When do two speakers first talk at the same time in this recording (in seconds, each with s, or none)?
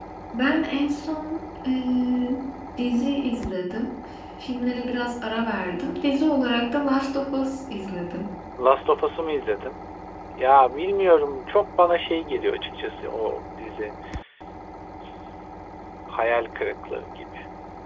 none